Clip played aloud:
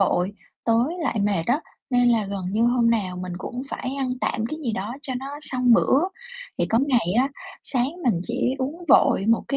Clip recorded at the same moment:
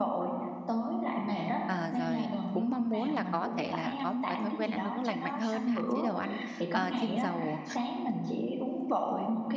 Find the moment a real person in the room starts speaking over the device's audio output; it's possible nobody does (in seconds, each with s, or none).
1.7 s